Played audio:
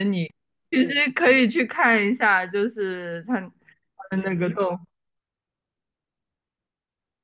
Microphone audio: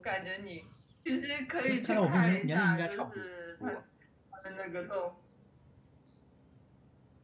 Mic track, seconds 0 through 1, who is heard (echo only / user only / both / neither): echo only